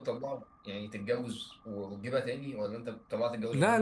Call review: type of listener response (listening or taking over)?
taking over